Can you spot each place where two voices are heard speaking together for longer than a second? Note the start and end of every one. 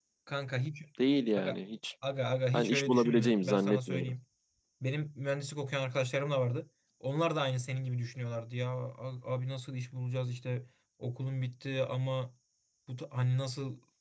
2.5-4.1

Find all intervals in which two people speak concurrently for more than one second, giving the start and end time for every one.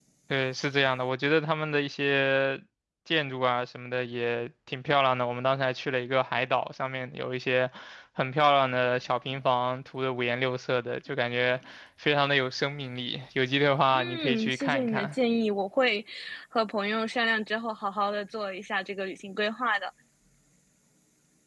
13.9-15.2

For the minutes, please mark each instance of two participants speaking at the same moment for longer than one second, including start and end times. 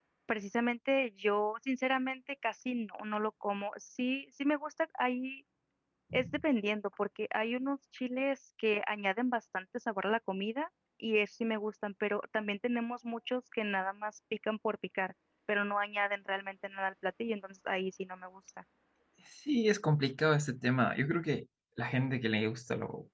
none

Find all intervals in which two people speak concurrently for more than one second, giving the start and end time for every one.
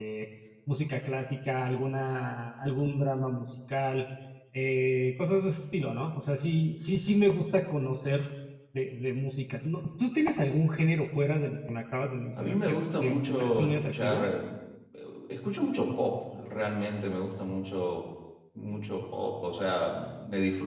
12.4-14.3

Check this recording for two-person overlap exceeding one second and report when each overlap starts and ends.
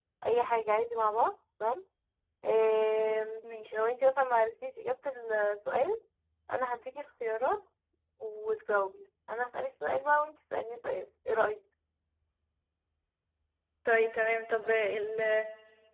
none

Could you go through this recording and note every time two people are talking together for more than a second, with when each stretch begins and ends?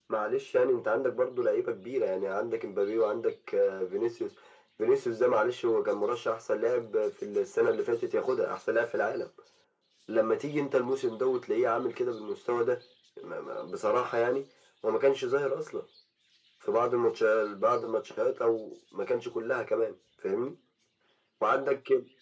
none

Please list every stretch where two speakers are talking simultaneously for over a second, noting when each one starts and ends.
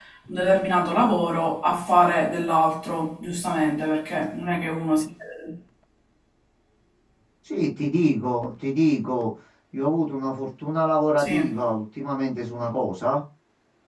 none

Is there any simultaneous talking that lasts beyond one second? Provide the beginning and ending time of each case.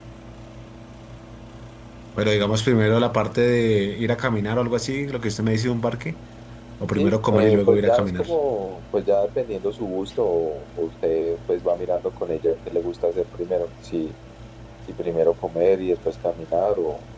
7.0-8.2

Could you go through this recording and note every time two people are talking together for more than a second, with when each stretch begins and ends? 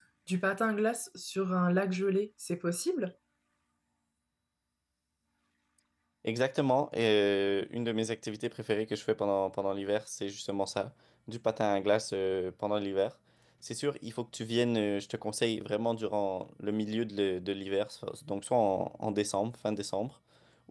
none

